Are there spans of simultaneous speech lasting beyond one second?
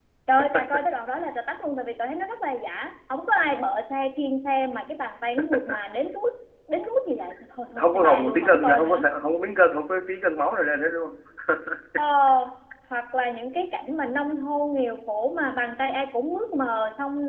Yes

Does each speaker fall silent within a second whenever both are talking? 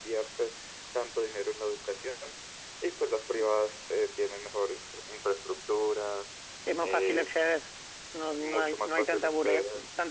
No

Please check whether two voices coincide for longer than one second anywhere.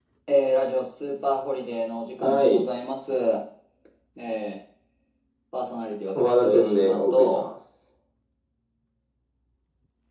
Yes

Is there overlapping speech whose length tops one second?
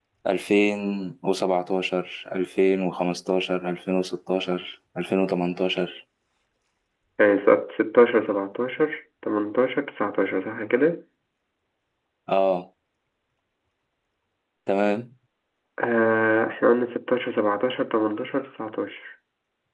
No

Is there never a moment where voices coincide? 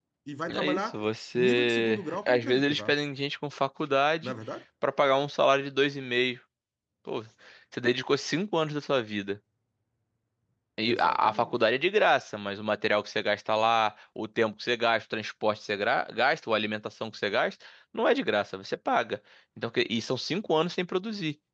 No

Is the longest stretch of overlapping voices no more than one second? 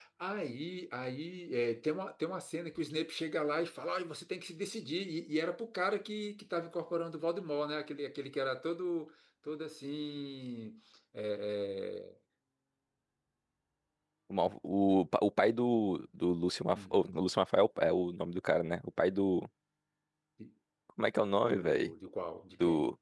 Yes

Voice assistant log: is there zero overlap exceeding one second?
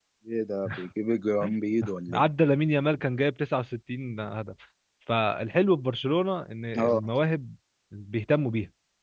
Yes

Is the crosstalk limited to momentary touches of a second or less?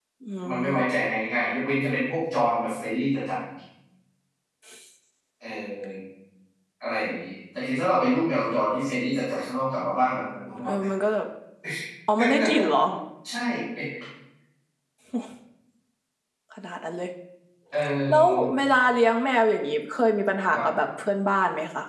Yes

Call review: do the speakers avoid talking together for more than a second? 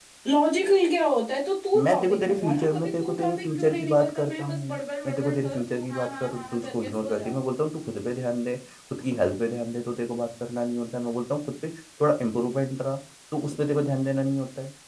No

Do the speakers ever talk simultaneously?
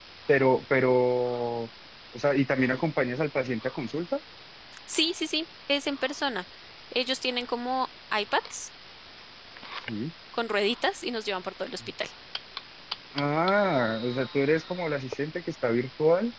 No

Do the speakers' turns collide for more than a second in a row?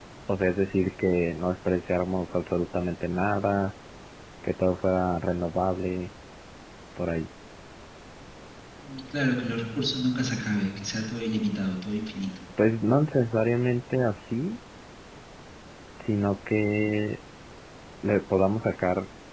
No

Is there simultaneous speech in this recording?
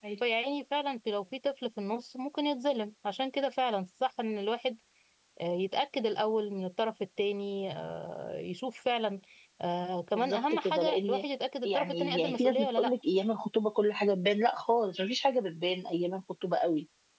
Yes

